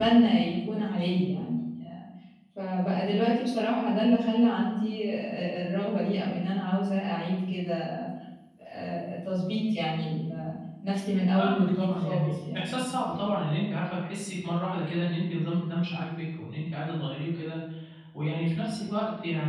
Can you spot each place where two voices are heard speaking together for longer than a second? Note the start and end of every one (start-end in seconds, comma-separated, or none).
11.4-12.7